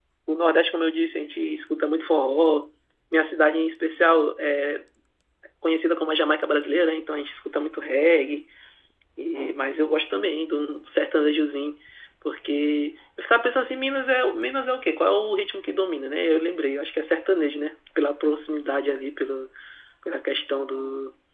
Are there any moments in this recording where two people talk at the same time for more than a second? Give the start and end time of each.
none

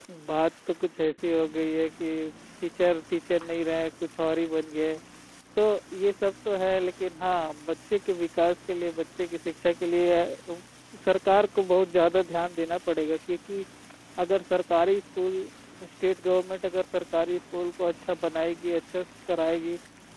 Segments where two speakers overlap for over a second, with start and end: none

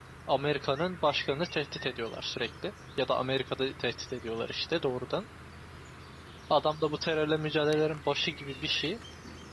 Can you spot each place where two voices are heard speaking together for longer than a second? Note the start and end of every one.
none

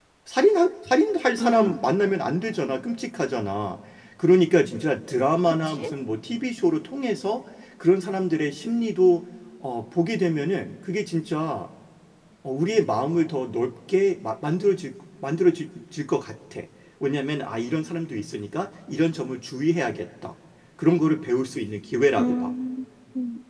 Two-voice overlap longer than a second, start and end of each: none

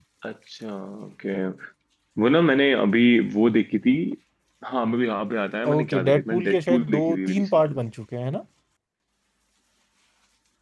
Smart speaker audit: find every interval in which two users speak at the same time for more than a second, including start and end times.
5.7-7.8

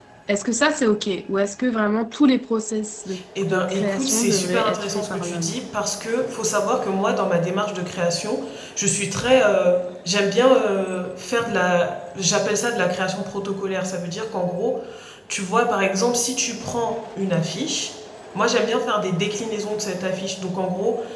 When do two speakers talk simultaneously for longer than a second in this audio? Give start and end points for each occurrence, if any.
3.5-5.6

